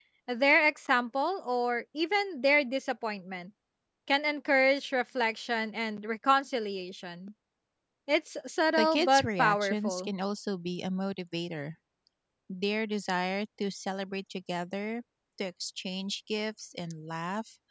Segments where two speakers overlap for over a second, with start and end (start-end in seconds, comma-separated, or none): 8.8-10.1